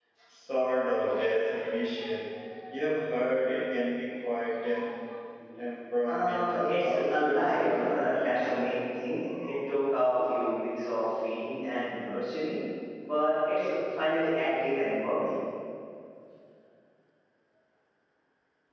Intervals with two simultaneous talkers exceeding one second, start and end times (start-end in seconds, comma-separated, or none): 6.0-8.5